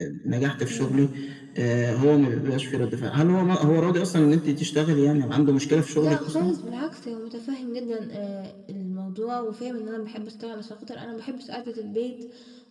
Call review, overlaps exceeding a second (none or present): none